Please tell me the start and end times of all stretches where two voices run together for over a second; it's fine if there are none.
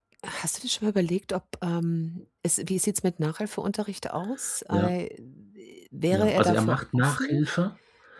6.1-7.4

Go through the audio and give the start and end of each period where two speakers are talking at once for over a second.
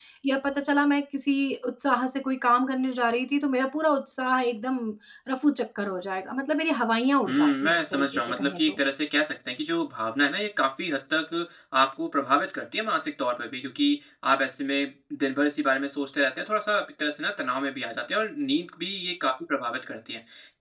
7.3-8.8

